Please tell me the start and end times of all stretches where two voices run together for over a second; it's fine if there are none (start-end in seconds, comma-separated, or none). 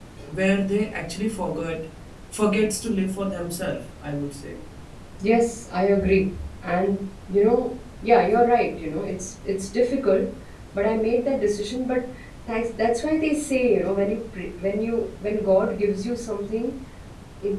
none